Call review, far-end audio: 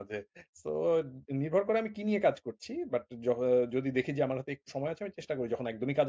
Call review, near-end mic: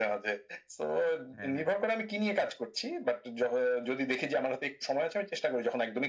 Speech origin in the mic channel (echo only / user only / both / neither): both